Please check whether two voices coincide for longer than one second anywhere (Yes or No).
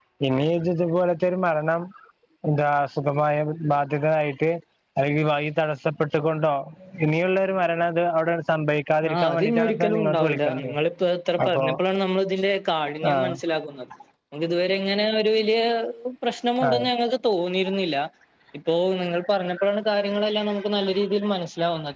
Yes